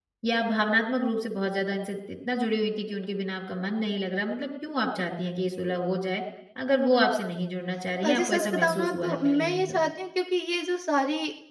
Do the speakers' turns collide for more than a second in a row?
Yes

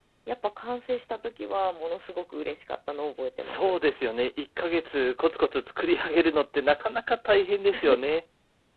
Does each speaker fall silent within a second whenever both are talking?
Yes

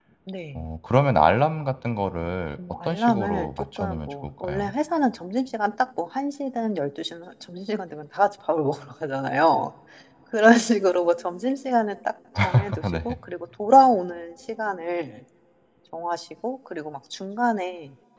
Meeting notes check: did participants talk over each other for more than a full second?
Yes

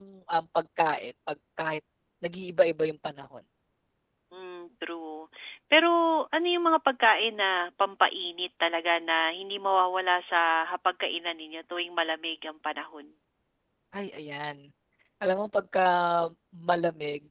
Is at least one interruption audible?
No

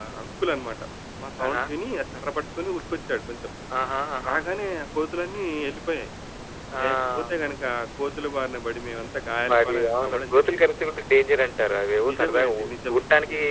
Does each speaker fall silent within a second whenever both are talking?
No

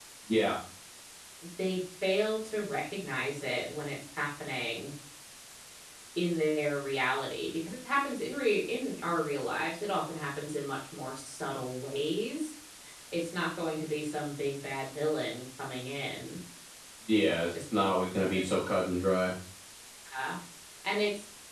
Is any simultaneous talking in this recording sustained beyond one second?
No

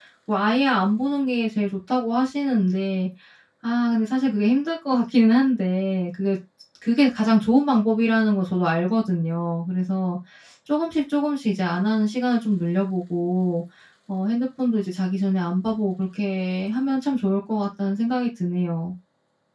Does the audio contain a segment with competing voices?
No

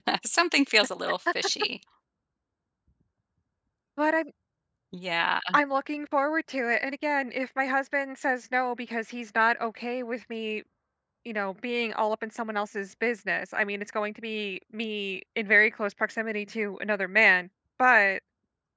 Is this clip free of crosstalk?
Yes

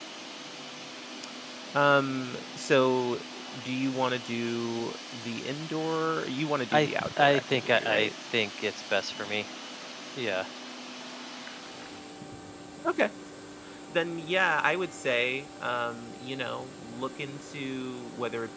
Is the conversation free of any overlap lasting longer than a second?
No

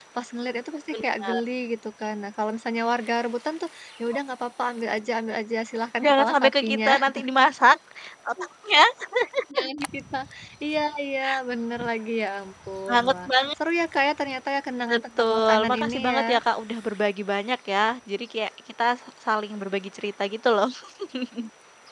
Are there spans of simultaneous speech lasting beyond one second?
Yes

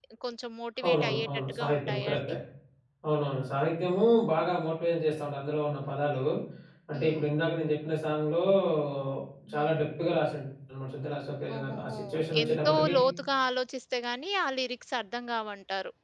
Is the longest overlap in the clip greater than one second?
Yes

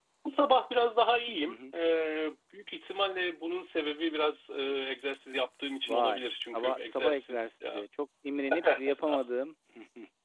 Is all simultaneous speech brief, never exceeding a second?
No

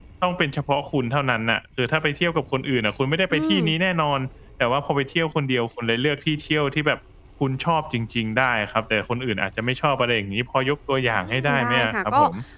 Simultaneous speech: Yes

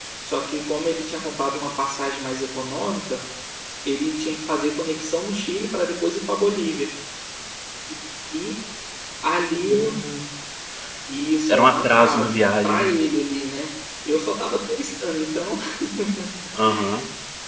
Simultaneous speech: Yes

